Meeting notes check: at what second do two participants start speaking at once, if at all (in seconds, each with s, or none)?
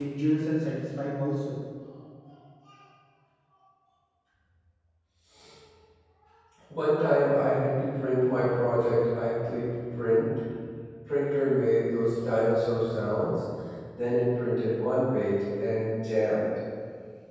none